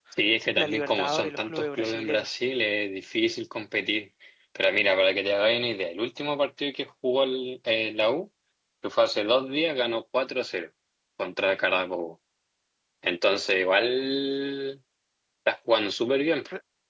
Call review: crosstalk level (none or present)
present